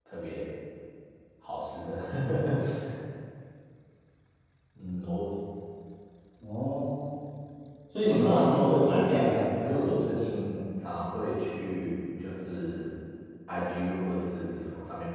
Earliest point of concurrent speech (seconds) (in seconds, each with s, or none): 8.0 s